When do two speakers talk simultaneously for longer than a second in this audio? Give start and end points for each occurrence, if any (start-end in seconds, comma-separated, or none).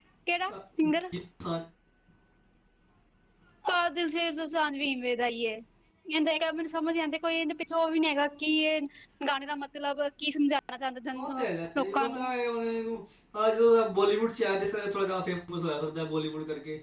none